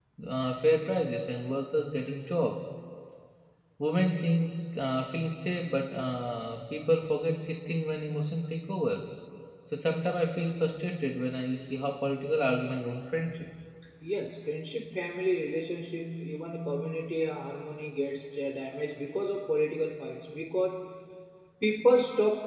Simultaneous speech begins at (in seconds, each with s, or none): none